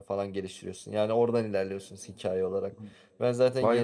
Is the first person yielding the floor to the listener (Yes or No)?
No